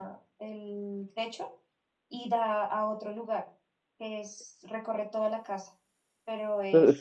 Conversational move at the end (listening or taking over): taking over